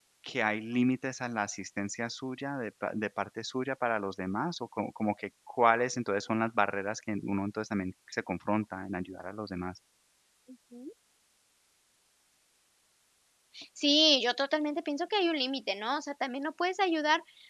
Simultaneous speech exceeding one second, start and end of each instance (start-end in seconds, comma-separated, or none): none